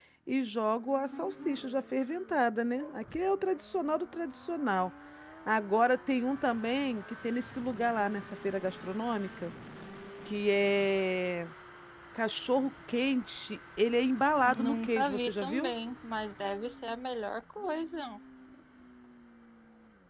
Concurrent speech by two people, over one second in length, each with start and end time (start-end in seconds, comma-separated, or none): 14.5-15.7